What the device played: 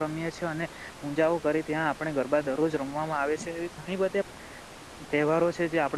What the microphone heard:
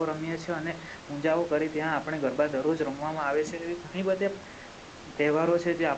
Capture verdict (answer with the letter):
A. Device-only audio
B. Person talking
A